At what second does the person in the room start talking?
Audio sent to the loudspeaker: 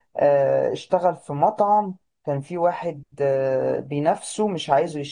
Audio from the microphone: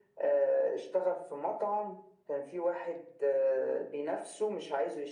none

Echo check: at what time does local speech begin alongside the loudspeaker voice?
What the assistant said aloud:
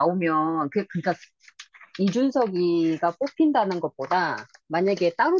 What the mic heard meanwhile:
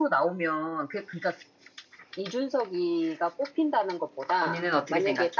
4 s

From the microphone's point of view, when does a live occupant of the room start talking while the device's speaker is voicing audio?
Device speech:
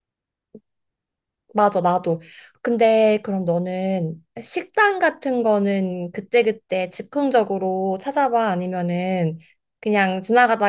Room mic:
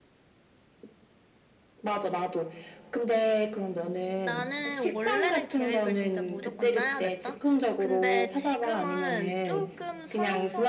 4 s

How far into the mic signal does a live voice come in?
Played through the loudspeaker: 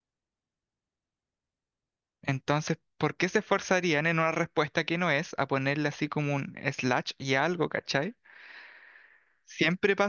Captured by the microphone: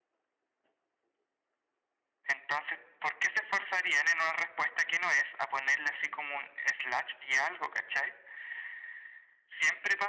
none

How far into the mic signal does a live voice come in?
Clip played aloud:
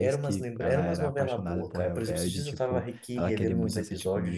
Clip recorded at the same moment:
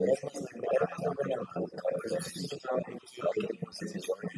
none

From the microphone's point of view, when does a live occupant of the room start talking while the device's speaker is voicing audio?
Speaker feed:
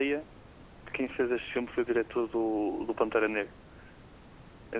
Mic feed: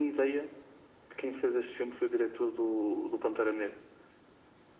none

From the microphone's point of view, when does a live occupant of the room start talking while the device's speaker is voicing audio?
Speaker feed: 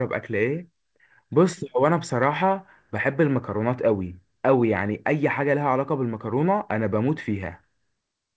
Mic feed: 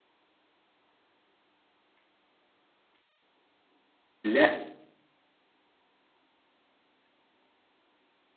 4 s

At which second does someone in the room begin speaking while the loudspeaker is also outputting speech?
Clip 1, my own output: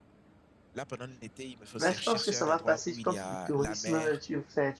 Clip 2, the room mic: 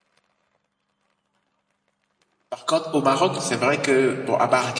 2 s

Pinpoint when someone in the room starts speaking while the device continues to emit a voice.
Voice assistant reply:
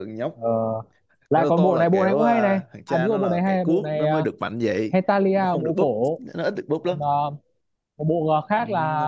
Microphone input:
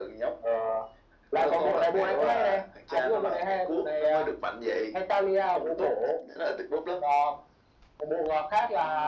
none

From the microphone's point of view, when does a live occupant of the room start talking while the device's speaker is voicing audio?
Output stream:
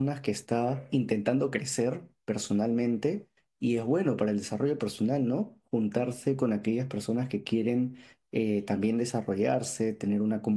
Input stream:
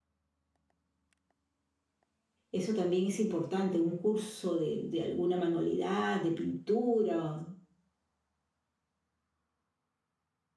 3 s

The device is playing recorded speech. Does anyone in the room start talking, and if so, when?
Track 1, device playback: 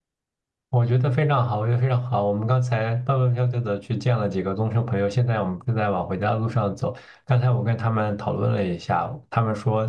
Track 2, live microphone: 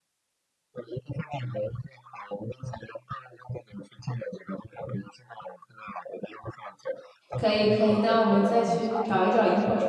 7 s

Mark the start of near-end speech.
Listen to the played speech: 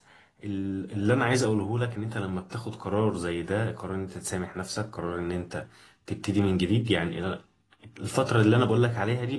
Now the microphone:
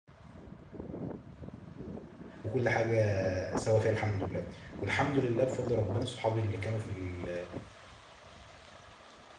2 s

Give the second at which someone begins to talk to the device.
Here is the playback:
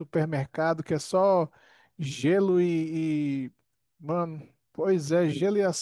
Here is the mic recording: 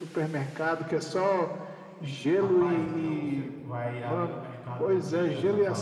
2 s

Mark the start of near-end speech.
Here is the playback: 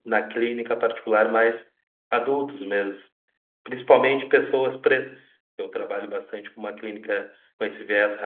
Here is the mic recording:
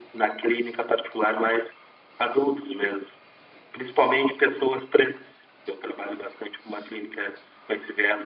none

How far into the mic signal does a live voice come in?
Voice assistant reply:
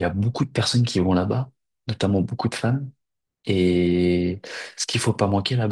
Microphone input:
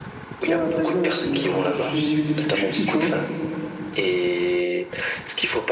0 s

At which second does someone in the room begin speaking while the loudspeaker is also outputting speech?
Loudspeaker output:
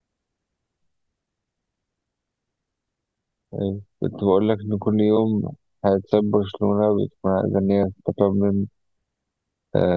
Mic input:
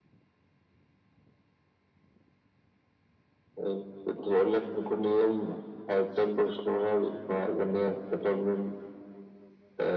none

